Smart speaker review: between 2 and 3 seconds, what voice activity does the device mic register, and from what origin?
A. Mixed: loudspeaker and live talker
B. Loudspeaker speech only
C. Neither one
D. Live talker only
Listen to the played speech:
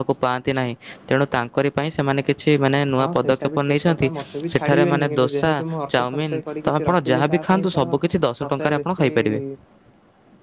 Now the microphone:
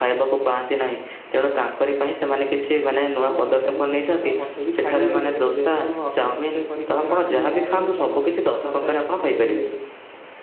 B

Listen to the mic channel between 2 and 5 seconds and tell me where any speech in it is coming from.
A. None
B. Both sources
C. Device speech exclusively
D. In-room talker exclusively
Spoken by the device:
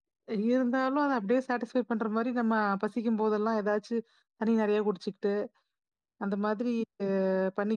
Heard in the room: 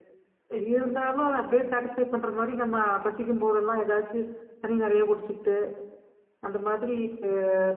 C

